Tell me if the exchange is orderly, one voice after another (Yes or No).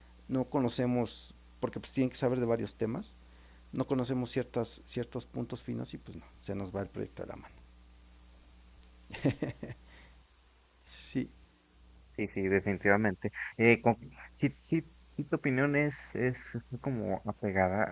Yes